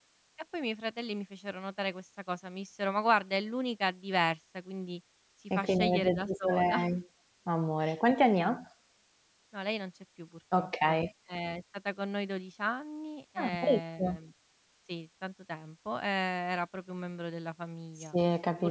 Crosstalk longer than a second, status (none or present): present